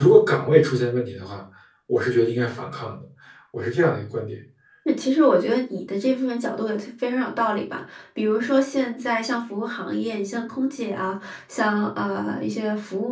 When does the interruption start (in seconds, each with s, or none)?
none